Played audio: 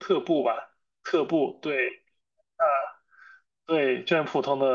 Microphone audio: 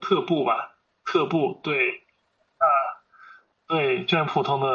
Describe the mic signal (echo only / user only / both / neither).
echo only